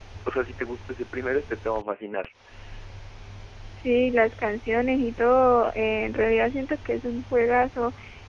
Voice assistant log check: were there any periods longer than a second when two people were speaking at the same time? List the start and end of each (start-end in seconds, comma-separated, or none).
none